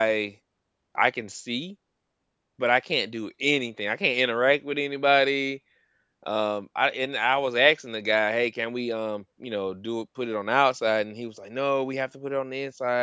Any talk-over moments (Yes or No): No